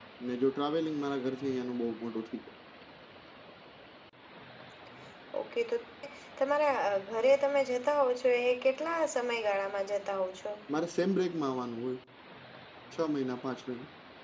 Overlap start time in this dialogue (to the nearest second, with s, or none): none